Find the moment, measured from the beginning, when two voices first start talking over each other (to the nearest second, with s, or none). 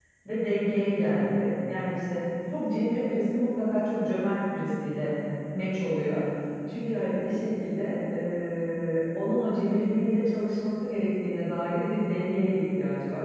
none